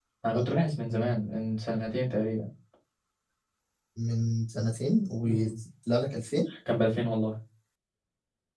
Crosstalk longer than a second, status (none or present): none